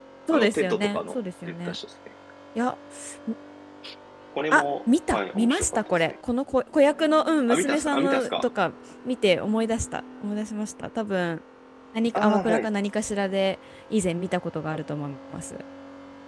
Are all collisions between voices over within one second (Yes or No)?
No